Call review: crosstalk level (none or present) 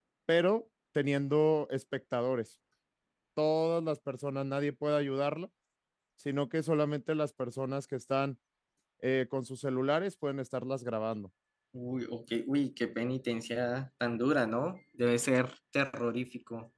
none